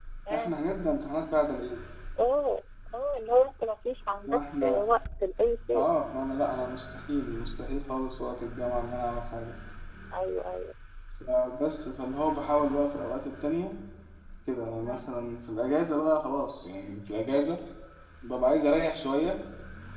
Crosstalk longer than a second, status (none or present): none